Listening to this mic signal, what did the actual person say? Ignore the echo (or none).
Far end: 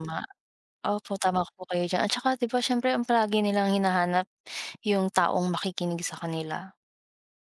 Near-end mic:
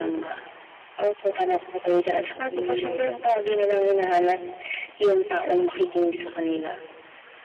Mm.